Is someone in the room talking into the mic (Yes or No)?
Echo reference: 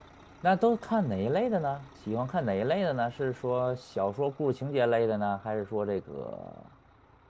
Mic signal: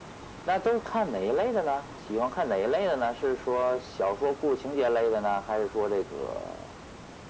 No